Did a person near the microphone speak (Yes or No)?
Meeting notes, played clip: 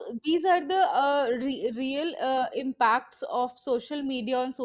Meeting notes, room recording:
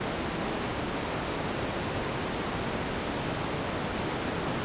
No